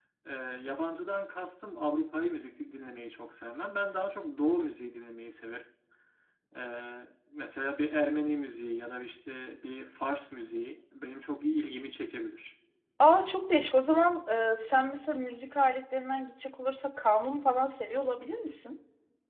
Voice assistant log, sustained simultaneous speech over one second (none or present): none